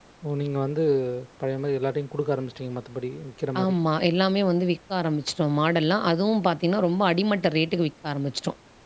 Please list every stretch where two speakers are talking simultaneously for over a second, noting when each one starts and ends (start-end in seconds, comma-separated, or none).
none